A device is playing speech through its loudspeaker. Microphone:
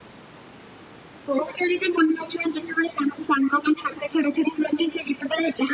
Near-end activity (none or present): none